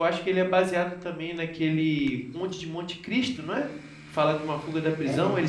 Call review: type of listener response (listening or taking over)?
listening